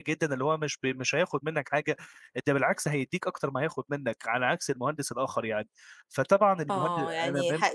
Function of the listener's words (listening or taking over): taking over